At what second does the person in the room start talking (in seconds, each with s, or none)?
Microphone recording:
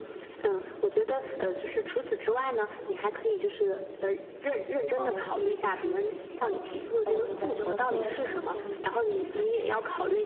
4.9 s